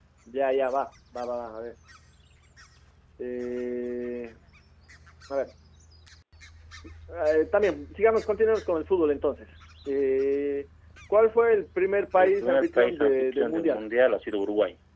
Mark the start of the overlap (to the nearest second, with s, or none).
12 s